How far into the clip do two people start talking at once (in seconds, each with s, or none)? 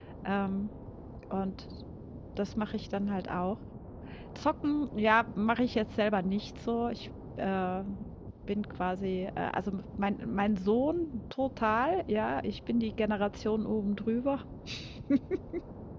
none